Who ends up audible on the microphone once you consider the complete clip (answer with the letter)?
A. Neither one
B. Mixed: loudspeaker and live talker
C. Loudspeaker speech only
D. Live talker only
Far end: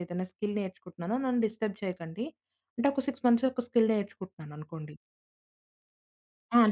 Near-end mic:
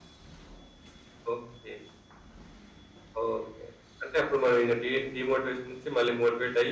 D